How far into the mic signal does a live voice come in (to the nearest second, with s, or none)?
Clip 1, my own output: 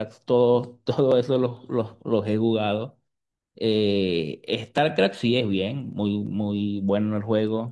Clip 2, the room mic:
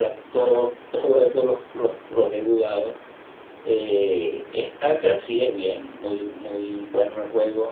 none